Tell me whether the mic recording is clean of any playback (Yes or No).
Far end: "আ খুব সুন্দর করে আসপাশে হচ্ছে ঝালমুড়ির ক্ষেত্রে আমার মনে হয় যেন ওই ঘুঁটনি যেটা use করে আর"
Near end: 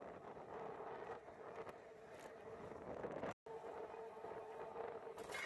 Yes